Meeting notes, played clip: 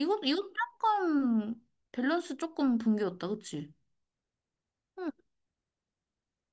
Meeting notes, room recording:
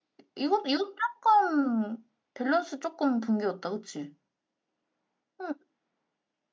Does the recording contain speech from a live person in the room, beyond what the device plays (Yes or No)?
No